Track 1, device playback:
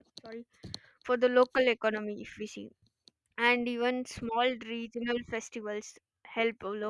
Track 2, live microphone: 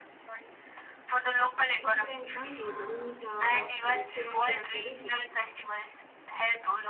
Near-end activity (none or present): present